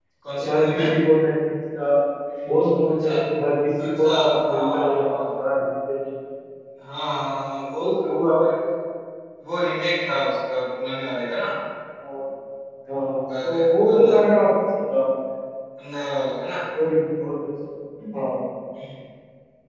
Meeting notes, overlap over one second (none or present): present